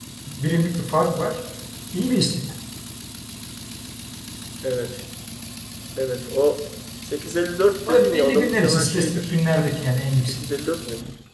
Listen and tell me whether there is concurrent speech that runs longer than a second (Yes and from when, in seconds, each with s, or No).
Yes, from 7.9 s